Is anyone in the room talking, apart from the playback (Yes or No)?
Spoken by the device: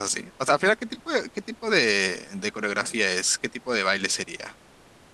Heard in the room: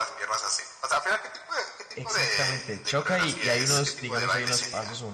Yes